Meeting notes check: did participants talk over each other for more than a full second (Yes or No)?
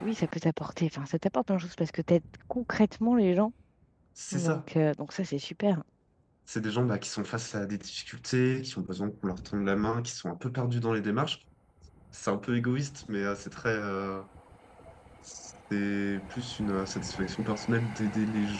No